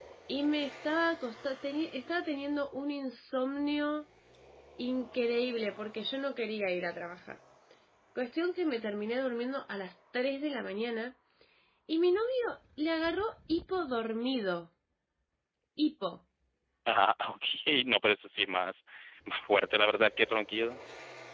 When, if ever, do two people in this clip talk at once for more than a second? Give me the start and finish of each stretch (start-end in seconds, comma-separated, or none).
none